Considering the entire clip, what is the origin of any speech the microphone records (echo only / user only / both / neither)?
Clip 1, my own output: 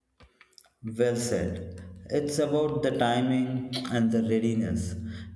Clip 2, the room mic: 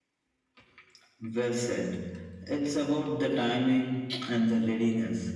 echo only